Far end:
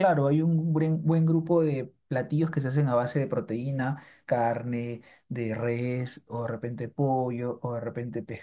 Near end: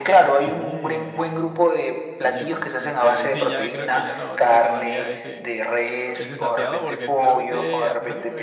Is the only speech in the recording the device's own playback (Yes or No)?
No